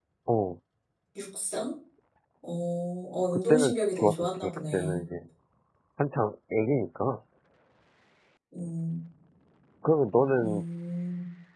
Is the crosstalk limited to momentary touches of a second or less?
No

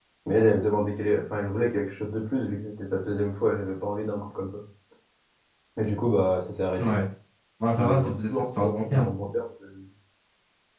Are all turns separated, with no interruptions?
No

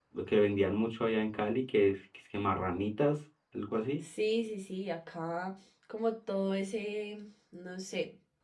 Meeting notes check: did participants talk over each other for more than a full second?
No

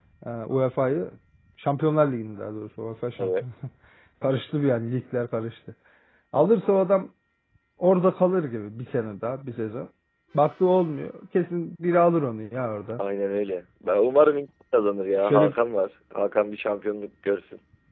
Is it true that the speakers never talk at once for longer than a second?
Yes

